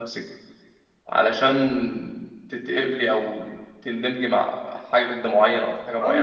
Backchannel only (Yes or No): No